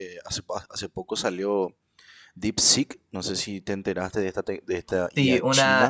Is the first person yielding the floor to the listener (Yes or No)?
Yes